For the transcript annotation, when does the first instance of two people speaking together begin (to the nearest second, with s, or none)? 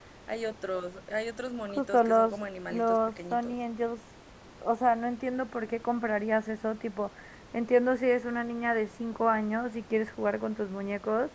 2 s